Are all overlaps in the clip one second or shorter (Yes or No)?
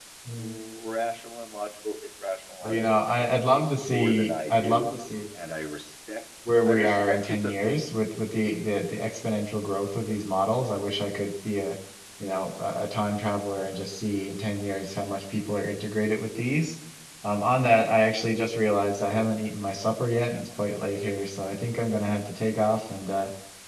No